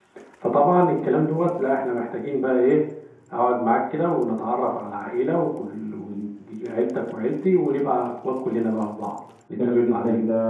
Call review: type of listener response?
taking over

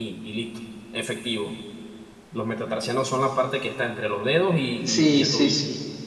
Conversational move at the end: taking over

